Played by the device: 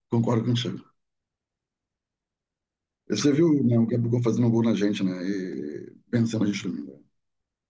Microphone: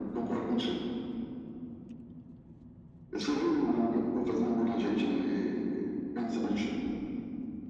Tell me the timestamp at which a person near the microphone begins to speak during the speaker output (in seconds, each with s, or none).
none